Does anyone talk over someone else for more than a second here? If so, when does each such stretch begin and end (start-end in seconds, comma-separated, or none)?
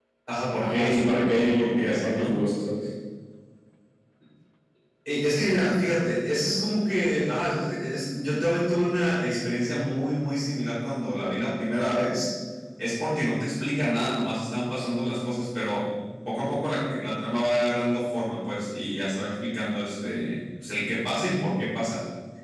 0.6-2.4